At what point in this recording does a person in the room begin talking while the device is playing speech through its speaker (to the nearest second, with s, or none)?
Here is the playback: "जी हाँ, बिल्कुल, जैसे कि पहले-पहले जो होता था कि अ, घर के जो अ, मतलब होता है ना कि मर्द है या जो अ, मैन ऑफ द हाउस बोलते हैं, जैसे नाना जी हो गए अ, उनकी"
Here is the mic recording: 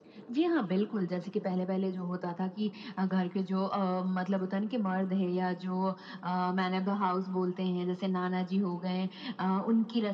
none